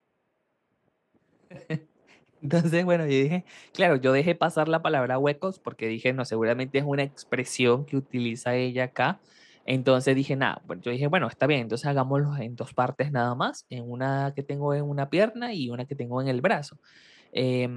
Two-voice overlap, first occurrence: none

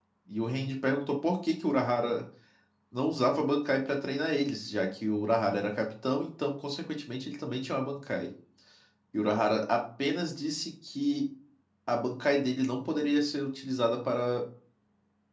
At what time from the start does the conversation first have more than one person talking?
none

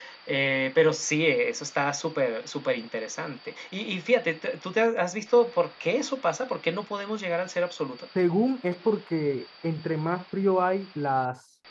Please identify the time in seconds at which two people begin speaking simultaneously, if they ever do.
none

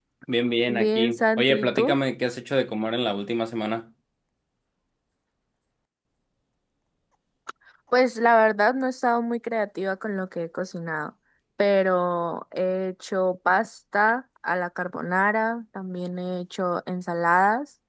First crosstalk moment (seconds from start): 0.7 s

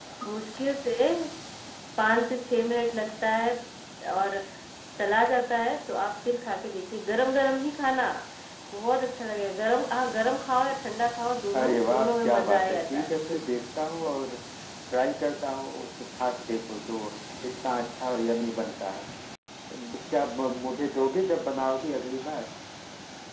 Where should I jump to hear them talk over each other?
11.5 s

